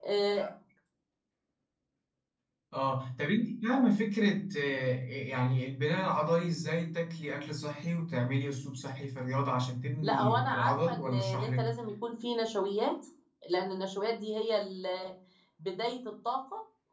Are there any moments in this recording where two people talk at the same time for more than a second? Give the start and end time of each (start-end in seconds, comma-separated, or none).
10.0-11.7